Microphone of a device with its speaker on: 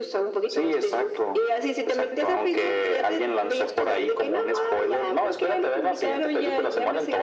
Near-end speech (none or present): none